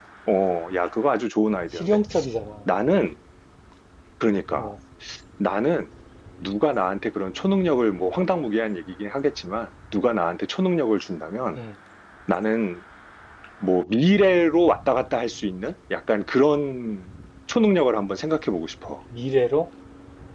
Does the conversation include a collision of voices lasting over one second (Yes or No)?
No